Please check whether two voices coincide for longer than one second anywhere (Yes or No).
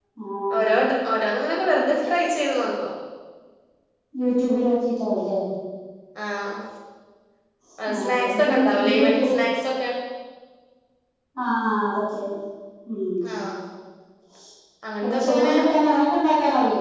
Yes